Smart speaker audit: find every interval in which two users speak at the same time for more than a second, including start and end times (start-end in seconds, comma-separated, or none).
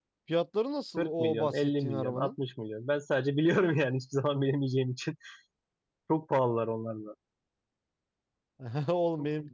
1.0-2.3